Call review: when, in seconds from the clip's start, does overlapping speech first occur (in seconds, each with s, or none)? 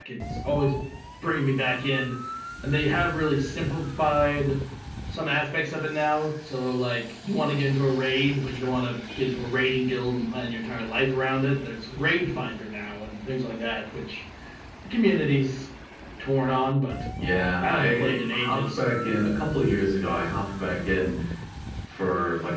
17.6 s